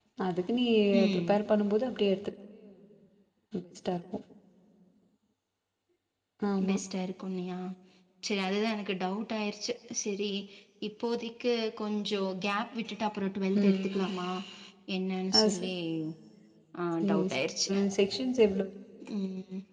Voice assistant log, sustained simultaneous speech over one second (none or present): none